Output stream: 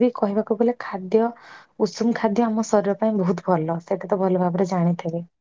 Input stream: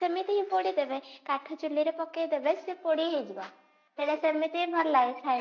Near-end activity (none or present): present